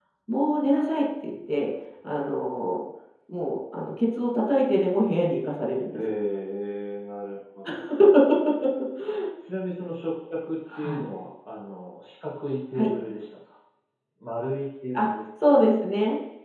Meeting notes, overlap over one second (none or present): none